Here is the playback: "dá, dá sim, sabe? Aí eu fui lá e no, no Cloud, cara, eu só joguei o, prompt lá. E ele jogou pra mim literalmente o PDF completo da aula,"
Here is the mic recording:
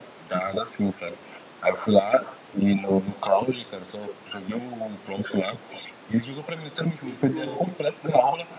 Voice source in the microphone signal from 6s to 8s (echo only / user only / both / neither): both